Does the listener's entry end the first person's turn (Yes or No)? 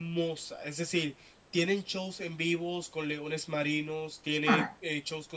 No